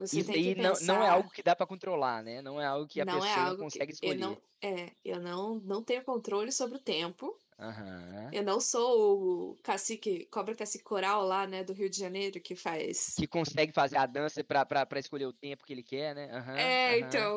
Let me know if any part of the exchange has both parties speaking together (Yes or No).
Yes